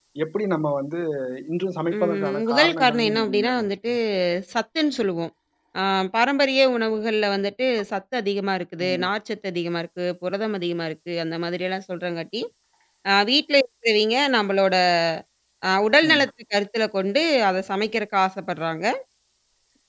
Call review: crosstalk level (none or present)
present